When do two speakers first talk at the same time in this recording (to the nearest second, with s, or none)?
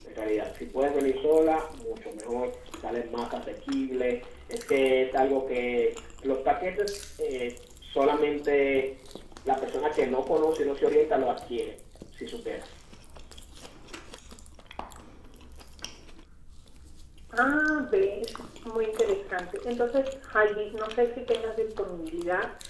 none